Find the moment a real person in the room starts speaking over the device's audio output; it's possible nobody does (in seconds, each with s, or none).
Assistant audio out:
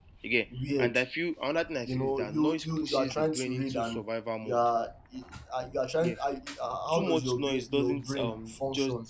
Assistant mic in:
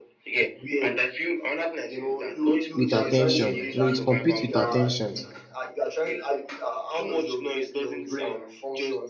2.7 s